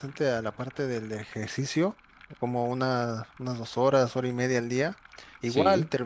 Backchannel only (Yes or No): Yes